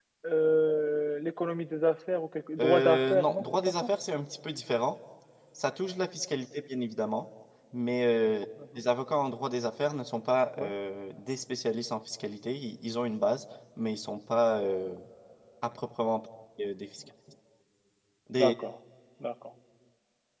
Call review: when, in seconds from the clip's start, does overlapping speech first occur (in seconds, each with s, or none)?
2.6 s